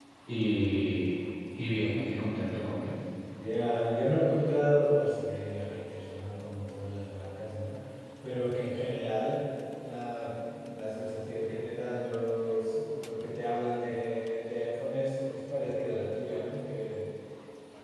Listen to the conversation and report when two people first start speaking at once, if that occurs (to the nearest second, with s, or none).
none